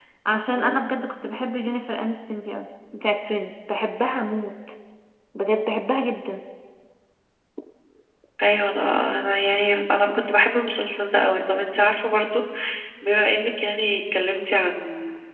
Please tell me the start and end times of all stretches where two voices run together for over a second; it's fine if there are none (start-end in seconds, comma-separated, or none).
none